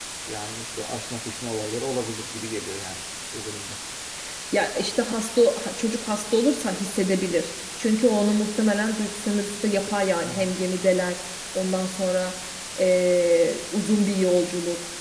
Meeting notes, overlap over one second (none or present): none